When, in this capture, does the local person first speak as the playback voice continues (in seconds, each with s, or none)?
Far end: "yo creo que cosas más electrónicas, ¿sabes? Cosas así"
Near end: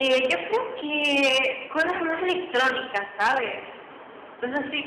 none